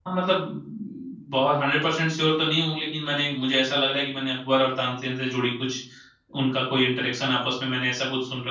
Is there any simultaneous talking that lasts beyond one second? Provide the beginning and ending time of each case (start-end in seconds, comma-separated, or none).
none